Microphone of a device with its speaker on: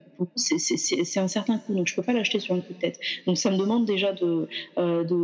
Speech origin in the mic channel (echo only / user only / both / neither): echo only